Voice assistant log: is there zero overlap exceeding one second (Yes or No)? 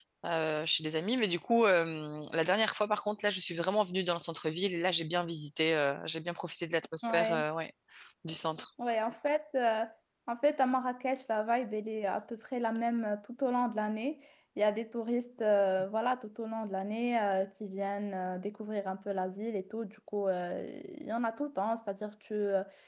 Yes